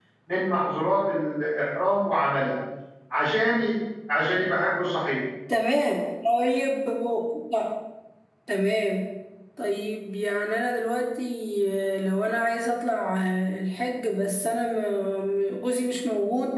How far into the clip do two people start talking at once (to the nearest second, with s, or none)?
none